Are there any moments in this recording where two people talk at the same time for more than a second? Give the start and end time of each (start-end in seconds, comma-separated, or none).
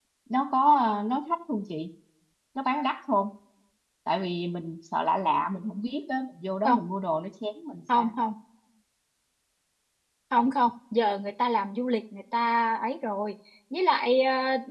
none